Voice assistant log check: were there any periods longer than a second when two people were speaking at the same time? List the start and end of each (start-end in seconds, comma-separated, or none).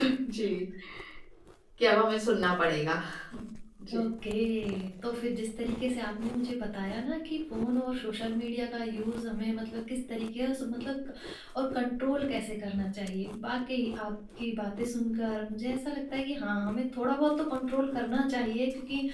none